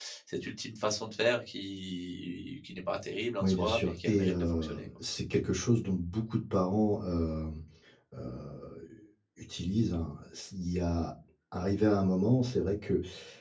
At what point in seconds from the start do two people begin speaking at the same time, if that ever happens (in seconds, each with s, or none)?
3.4 s